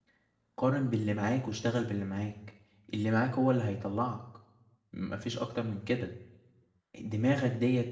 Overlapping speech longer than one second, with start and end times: none

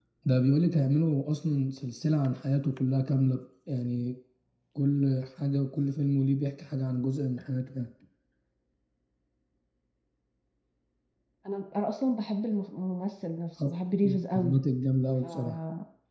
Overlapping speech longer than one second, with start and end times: none

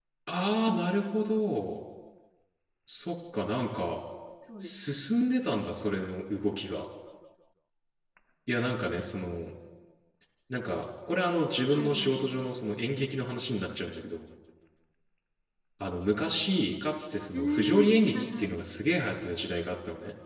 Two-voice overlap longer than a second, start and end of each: 17.3-18.6

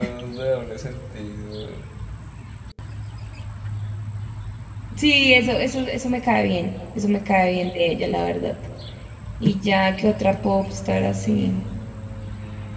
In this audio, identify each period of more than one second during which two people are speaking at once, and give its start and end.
none

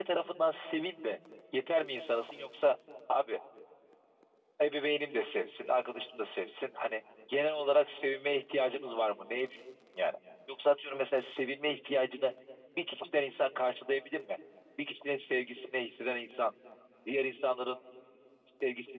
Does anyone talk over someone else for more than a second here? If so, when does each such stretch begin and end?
none

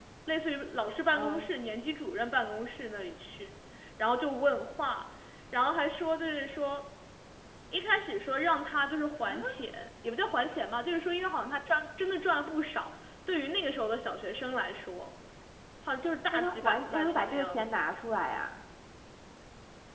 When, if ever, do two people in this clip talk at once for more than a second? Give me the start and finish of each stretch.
16.3-17.6

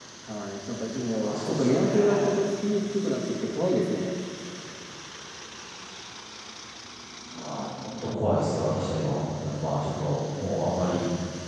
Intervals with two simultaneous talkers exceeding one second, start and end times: 1.2-2.4

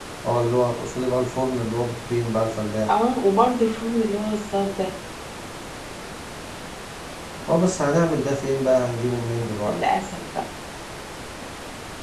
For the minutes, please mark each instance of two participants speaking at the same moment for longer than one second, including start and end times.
none

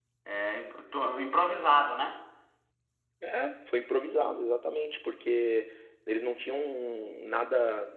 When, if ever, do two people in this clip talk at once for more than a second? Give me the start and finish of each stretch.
none

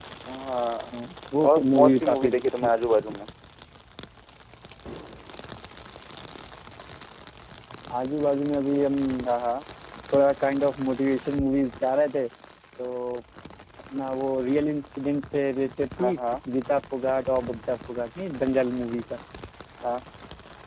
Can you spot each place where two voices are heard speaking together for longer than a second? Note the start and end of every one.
1.5-3.1

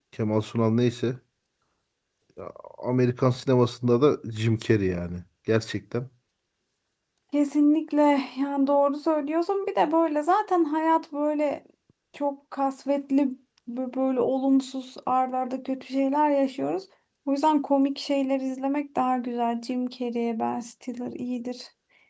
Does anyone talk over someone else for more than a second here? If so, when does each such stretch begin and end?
none

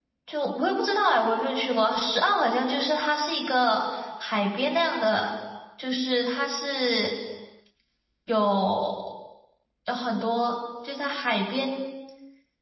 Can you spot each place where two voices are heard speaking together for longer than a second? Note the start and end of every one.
none

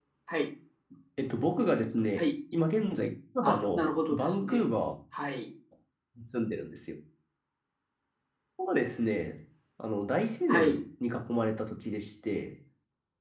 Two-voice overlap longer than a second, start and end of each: 3.4-4.6

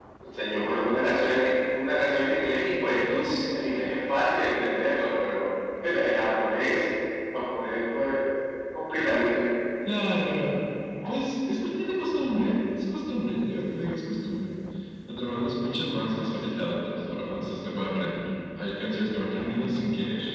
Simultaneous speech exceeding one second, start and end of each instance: none

